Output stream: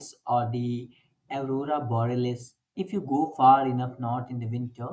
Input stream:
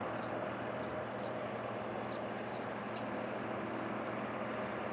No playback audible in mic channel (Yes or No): Yes